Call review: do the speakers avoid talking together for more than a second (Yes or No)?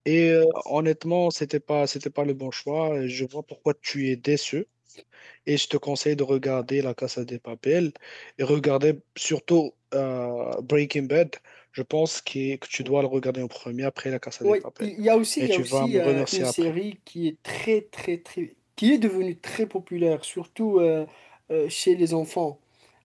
No